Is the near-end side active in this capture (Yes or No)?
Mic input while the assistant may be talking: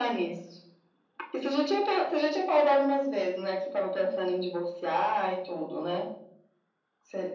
No